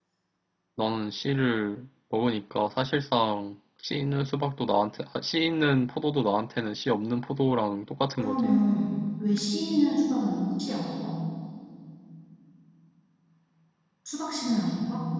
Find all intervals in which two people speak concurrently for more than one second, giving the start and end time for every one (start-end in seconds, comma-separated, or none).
none